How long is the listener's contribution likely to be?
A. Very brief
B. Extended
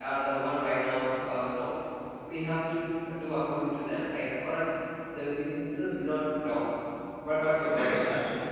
B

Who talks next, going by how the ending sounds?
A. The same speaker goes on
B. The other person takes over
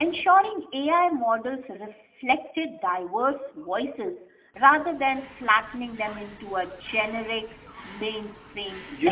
B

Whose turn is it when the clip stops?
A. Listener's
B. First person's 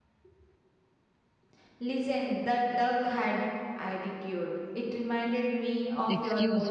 A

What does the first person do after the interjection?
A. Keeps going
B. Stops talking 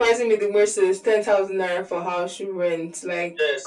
B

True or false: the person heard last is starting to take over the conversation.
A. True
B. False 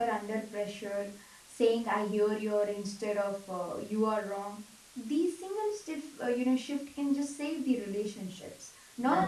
B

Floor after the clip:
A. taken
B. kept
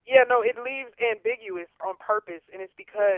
B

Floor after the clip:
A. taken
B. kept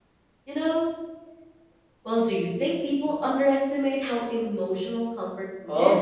A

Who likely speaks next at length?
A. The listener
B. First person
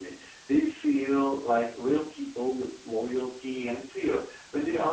B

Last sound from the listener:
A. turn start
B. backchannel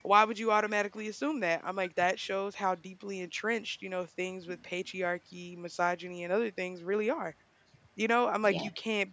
B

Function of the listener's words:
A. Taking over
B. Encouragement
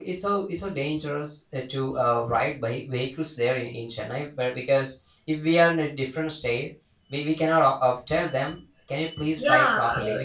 A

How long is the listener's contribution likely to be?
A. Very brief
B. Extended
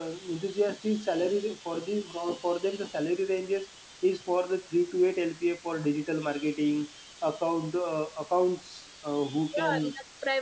B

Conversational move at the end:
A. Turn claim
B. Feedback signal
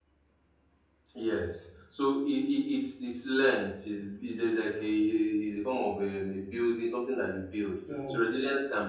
B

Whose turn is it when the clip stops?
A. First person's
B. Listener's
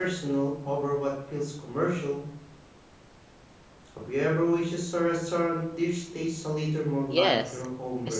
B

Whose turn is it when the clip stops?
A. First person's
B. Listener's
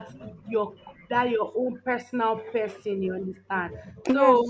A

